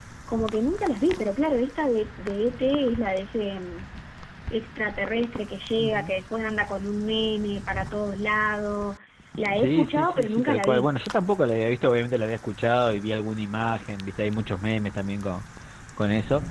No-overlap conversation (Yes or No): No